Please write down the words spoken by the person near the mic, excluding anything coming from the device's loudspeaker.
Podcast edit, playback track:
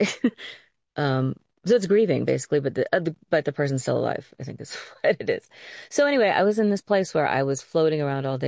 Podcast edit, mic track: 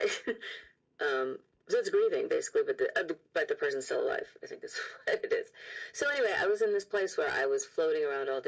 none

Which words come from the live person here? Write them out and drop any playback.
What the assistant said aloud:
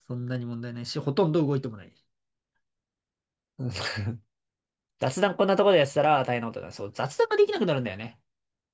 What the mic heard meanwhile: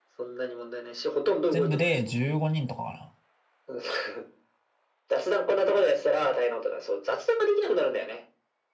全部で15人とかか

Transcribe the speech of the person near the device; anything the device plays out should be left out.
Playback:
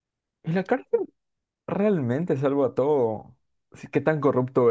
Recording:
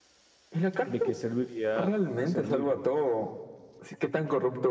¿de qué serviría ser libre?

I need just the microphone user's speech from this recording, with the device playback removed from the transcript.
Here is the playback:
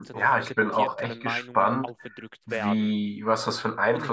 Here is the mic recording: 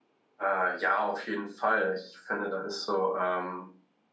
Äh, ja, auf jeden Fall. Ich finde, da ist so ähm,

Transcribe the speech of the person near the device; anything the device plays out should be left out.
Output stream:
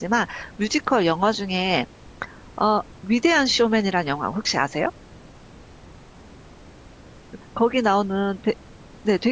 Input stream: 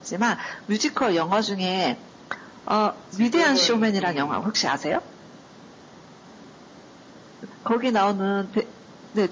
지금은 좀

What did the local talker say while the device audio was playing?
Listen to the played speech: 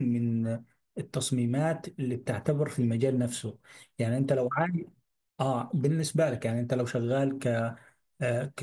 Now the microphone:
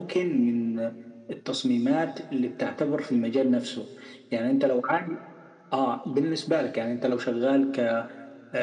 none

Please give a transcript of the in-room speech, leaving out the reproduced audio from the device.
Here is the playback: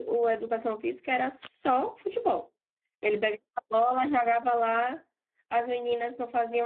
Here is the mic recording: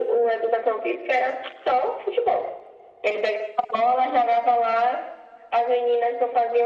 none

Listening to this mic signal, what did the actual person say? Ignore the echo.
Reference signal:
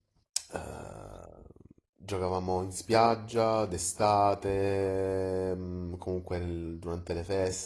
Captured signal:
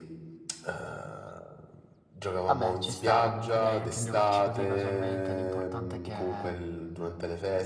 Vabbè, ci sta comunque, dai, anche giocarci così casualmente, l'importante è che

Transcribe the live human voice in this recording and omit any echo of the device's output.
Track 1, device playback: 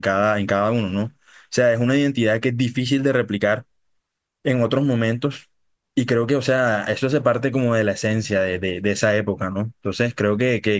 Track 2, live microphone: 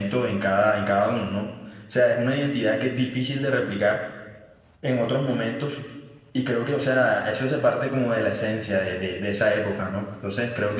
none

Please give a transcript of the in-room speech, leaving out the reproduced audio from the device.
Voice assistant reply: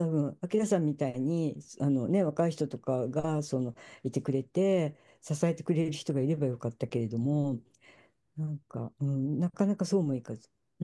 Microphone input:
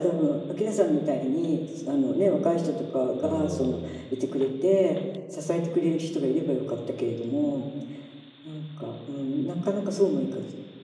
おー、

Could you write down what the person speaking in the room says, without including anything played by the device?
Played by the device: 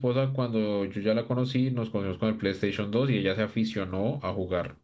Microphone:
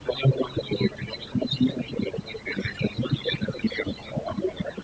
none

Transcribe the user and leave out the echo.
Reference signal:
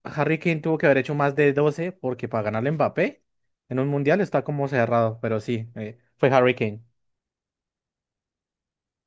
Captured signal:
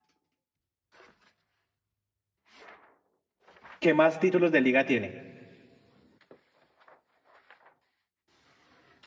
que más títulos de liga tiene.

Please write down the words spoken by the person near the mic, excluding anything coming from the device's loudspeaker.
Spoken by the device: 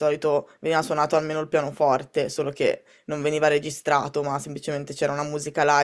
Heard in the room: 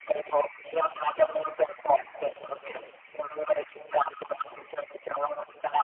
none

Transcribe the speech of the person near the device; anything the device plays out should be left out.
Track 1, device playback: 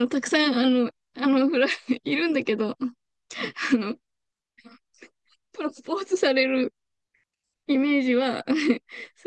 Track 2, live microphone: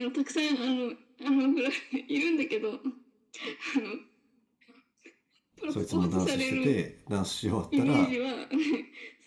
そいつもダンスしててダンスし終わったら

